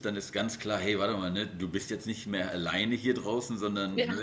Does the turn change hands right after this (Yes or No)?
No